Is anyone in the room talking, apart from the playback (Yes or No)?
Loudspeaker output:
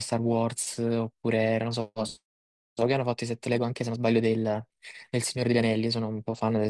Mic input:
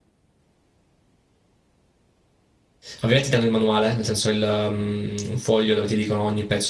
Yes